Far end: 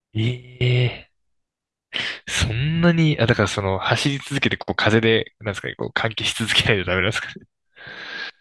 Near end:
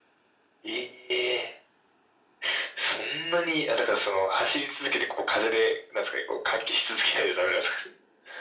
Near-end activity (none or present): none